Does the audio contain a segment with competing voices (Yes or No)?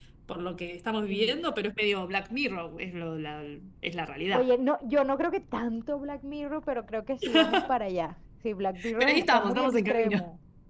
Yes